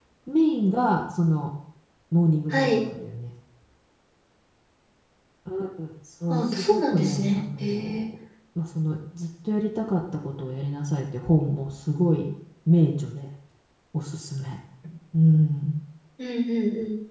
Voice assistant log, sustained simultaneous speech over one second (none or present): present